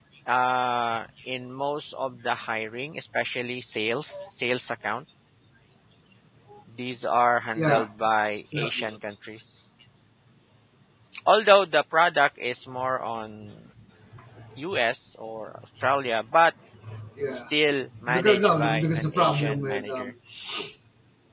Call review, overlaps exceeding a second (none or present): present